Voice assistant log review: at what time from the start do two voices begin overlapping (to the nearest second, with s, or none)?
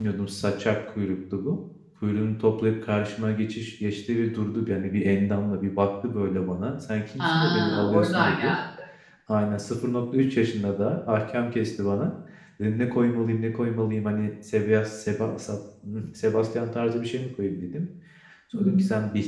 7 s